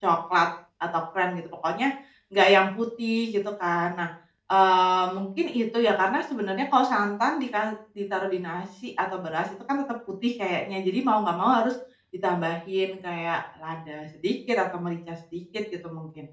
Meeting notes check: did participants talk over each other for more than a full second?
No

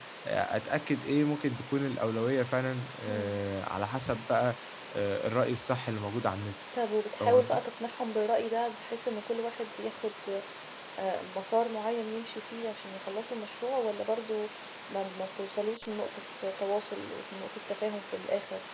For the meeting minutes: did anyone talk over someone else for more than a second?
No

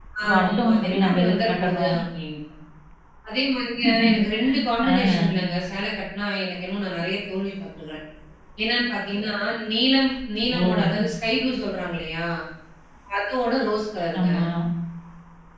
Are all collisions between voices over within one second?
No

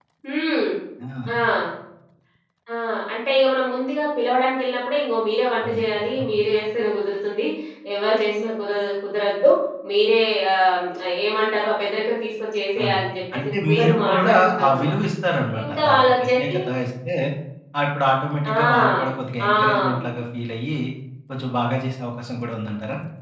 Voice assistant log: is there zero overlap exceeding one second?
No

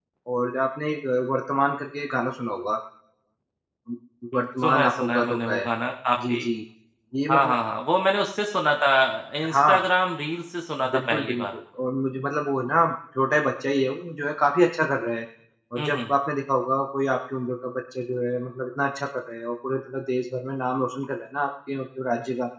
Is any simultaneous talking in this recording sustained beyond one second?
Yes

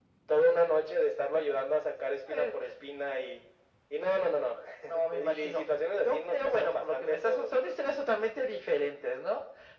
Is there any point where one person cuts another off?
Yes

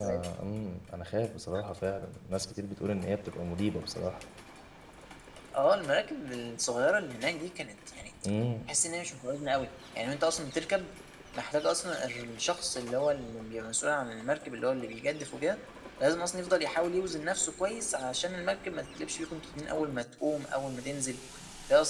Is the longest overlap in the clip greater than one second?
No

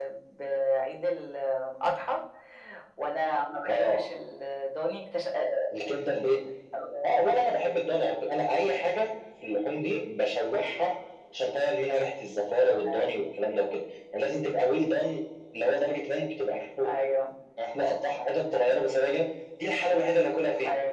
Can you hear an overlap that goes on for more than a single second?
No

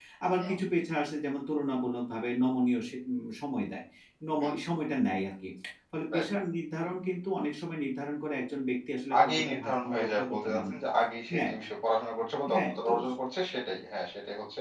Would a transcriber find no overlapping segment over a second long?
No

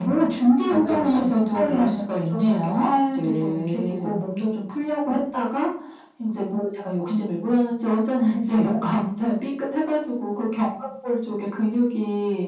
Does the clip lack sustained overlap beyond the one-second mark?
No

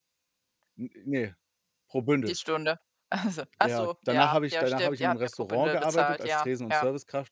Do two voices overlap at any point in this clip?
Yes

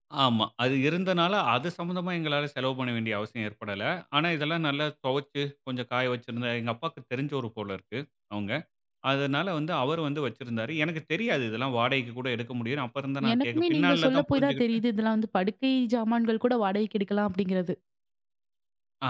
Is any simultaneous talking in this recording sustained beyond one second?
Yes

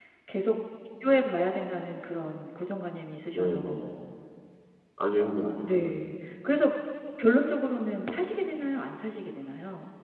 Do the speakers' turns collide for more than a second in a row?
No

